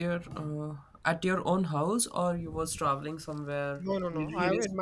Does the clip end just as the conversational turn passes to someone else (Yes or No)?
Yes